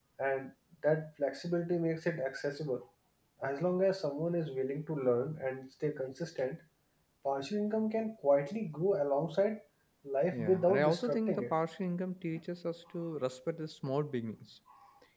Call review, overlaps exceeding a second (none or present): present